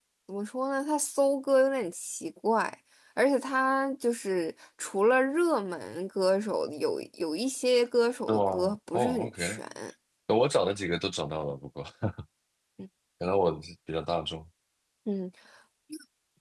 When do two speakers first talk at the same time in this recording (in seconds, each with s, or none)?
8.3 s